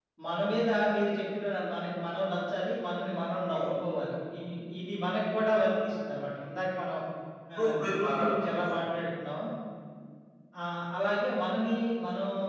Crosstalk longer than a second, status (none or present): present